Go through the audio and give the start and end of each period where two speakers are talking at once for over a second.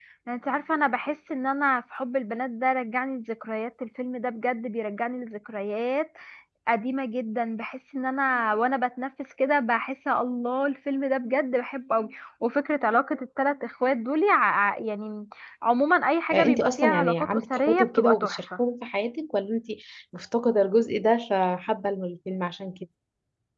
16.3-18.4

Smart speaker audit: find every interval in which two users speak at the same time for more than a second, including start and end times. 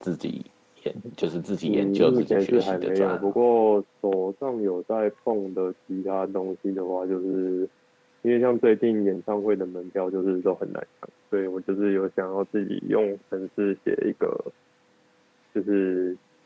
1.7-3.4

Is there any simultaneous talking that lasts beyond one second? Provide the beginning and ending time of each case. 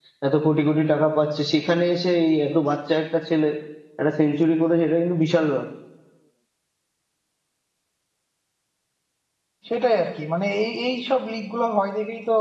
none

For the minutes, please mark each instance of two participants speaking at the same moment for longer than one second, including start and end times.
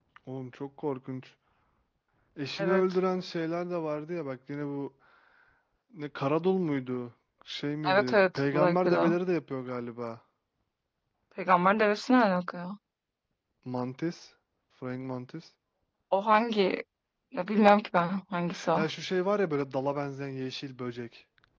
7.9-9.2

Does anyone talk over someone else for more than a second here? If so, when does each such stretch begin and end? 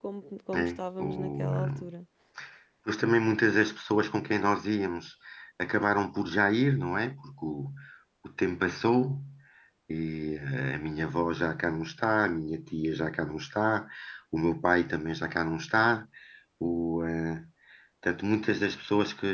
0.5-1.9

